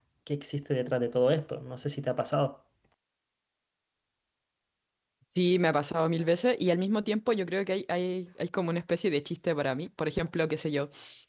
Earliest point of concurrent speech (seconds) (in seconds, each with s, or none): none